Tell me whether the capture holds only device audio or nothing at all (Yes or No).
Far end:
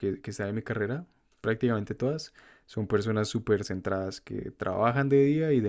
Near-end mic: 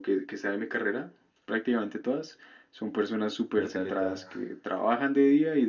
No